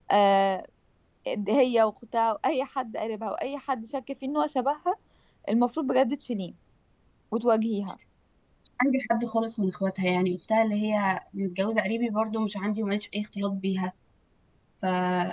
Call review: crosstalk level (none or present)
none